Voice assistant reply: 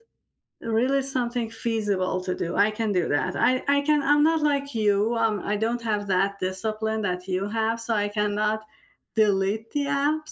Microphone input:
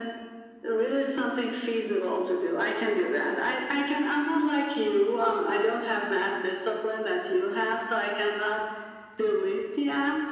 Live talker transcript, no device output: none

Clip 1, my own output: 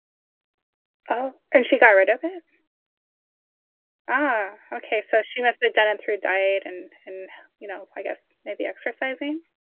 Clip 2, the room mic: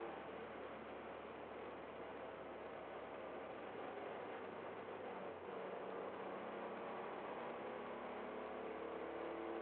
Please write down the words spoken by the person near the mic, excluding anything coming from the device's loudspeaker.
none

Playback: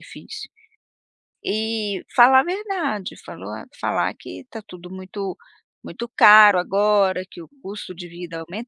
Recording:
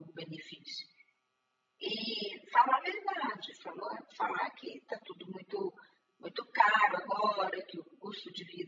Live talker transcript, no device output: none

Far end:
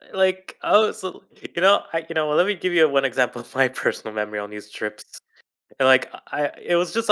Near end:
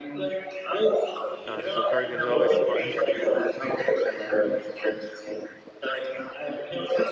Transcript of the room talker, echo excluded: Uh, the go karting is always fun.

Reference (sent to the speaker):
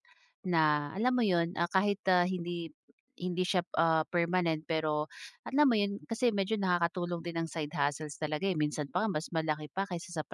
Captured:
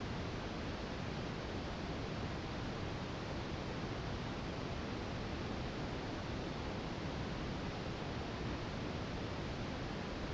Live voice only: none

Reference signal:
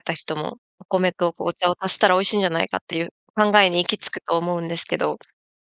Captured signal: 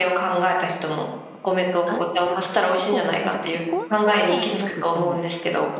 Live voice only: あったかいココアを、あ、じゃ、ココアパウダーじゃなくってもう、

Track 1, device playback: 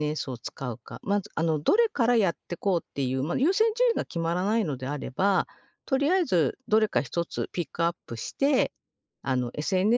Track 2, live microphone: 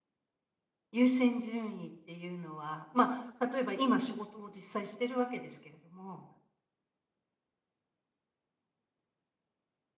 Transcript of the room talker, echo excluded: 優先順位っていうのは、まあ、例えば今仕事を実際してるわけですけれども、

